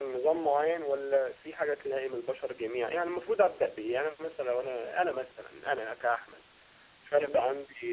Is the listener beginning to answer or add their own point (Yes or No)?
No